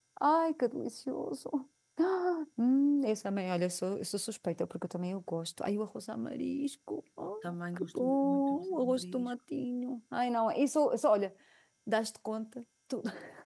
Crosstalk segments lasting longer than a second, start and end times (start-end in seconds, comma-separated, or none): 7.8-9.3